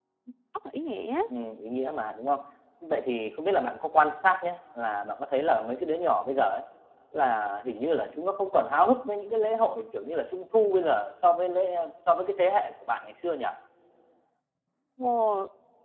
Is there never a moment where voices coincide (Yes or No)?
Yes